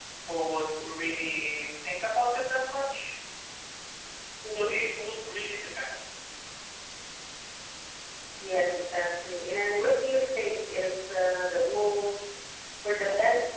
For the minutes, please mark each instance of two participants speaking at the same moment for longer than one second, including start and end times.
none

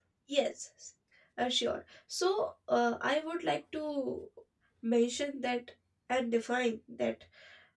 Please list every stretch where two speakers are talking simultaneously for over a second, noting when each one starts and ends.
none

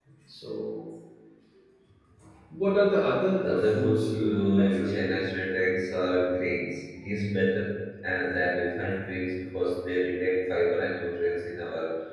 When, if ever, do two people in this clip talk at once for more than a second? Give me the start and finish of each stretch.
3.4-5.2

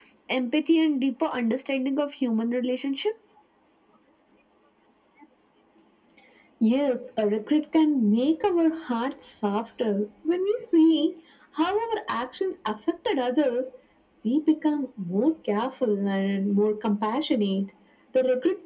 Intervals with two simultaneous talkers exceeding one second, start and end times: none

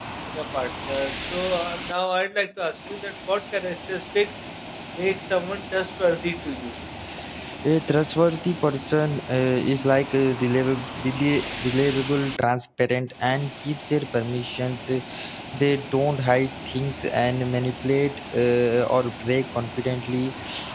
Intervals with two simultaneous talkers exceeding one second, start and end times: none

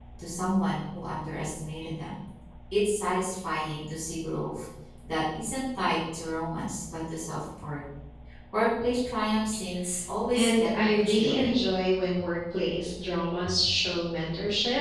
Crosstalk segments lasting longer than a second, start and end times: 10.3-11.6

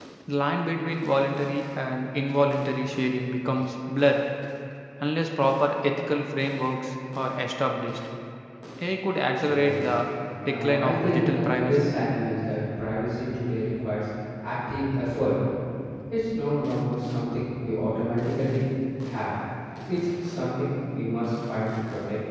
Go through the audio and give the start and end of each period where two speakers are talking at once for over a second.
10.4-11.9

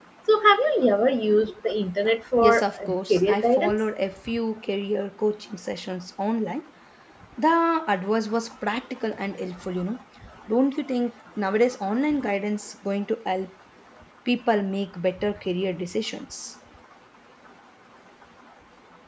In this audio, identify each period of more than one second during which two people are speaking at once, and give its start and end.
2.4-3.8

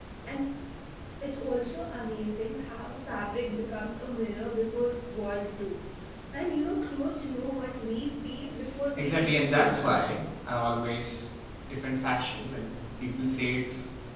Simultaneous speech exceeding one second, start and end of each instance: 9.0-10.2

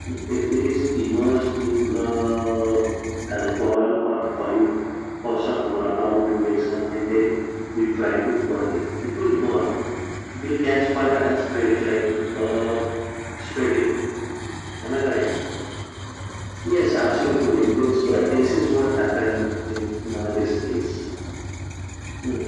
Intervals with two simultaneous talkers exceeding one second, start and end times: none

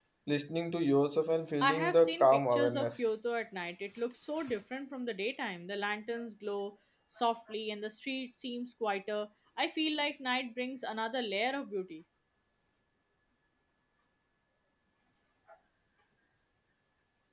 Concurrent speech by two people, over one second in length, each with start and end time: 1.6-2.9

